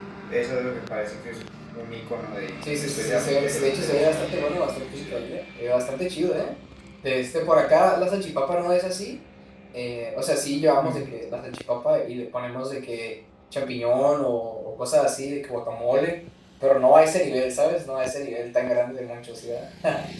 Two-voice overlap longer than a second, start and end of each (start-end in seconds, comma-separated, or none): 2.8-5.2